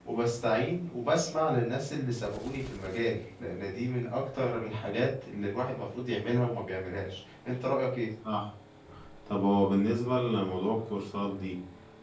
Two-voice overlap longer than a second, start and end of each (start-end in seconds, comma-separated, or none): none